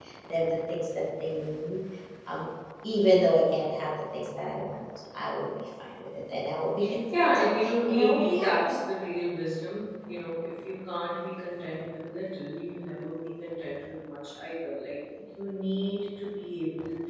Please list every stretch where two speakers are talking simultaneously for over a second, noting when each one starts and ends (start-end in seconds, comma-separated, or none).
7.1-8.8